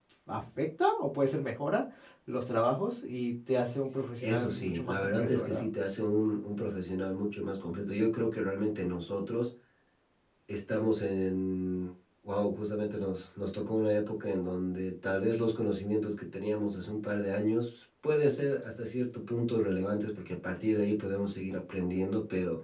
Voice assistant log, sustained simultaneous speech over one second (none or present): present